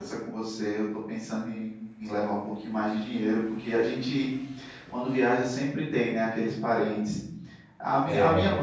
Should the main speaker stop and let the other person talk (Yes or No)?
No